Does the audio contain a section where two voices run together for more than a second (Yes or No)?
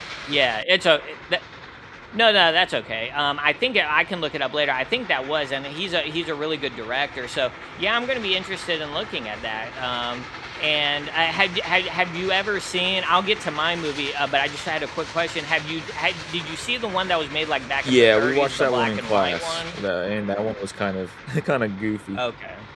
Yes